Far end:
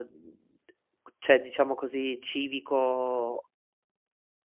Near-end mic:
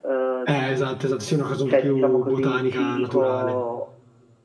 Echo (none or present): present